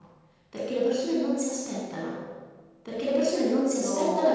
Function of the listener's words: listening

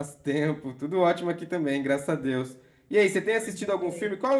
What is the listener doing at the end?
listening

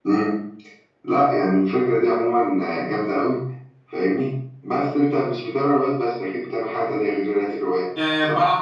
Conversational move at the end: taking over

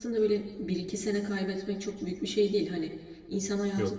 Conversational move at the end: listening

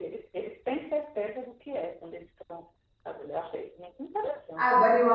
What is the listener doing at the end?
taking over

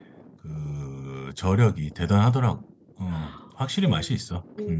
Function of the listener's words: taking over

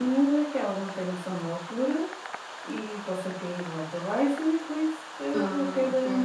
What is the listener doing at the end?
listening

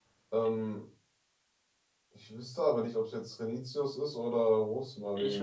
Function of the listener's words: taking over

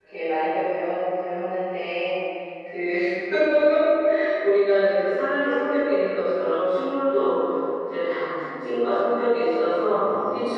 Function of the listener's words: listening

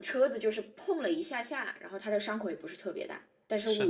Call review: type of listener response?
taking over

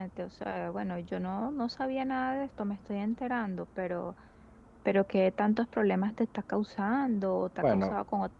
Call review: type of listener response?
taking over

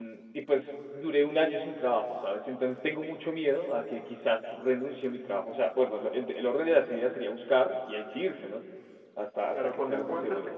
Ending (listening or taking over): taking over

